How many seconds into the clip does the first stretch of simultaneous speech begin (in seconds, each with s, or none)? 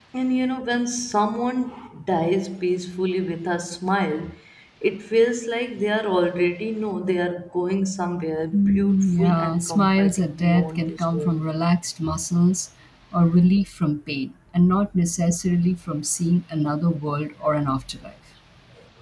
8.5 s